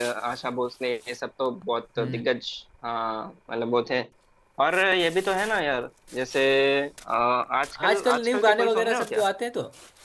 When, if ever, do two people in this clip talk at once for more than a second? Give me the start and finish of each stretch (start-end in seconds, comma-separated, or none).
7.9-9.2